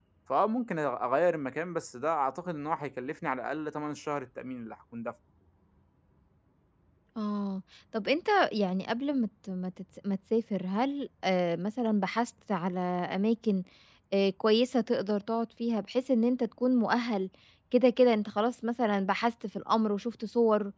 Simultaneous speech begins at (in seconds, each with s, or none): none